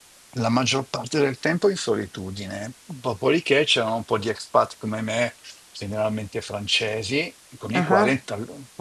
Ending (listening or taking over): listening